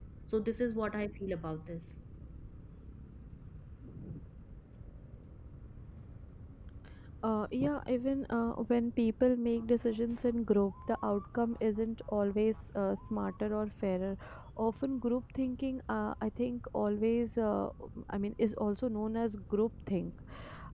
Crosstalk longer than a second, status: none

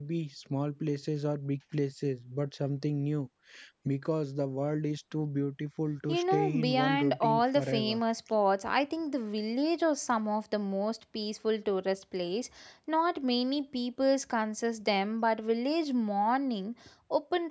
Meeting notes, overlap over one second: present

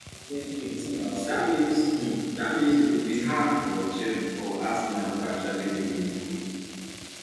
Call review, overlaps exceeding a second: none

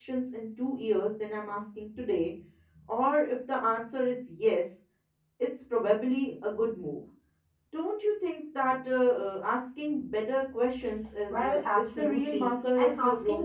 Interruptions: present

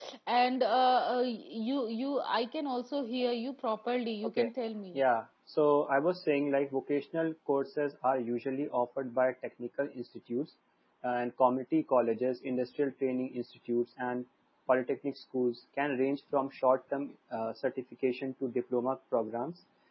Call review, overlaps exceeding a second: none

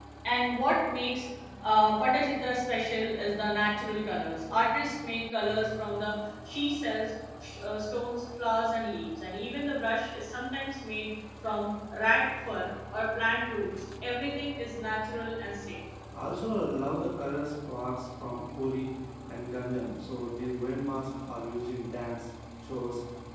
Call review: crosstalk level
none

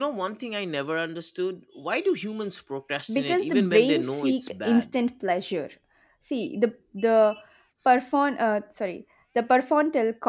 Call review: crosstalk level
present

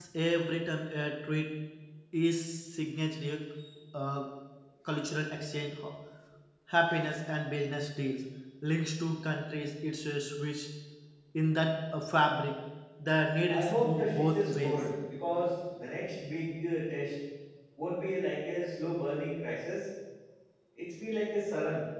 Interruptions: present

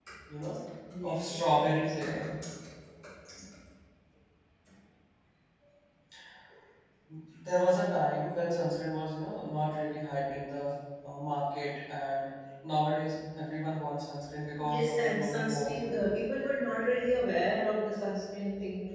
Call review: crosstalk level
present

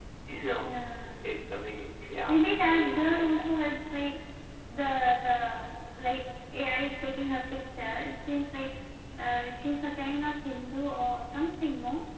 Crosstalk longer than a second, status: present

